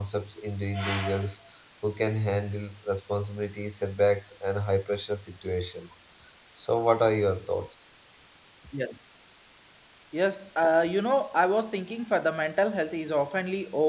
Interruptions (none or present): none